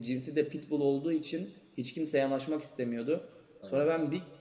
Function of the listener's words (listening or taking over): listening